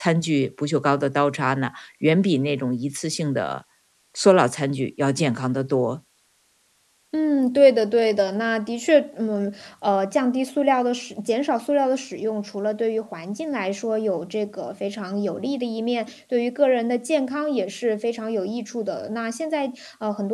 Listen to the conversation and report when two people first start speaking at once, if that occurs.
none

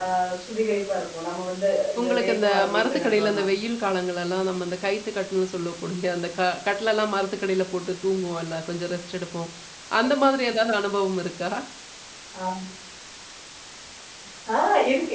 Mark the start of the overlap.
2 s

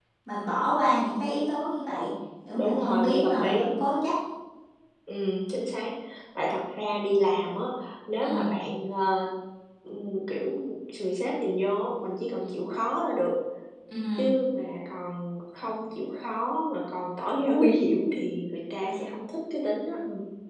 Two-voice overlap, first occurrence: 3 s

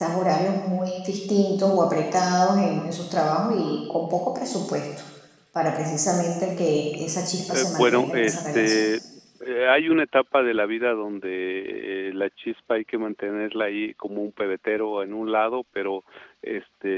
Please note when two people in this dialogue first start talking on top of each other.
7 s

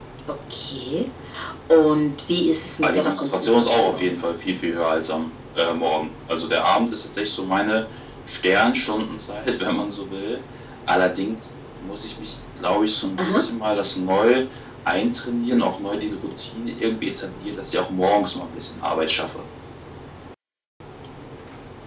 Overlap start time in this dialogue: 3 s

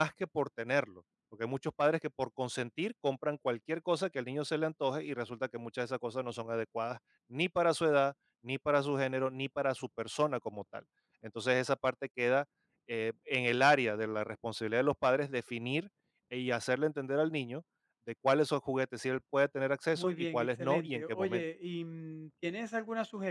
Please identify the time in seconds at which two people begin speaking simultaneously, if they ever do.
20 s

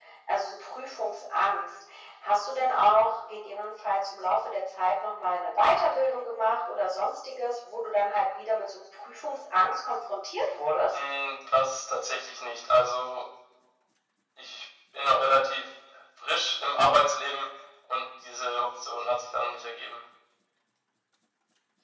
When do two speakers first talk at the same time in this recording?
none

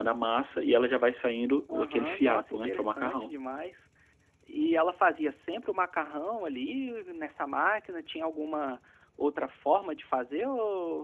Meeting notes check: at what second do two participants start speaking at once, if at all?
2 s

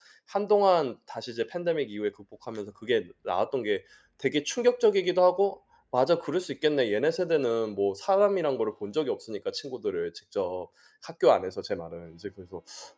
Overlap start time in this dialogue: none

